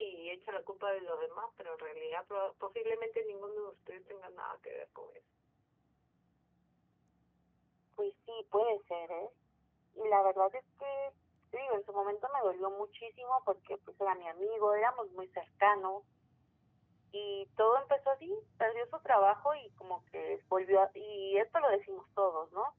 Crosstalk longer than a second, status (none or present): none